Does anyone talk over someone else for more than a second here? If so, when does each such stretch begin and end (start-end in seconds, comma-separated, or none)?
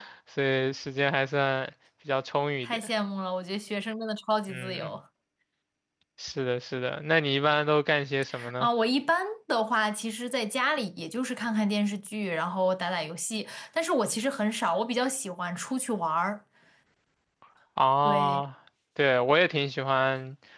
none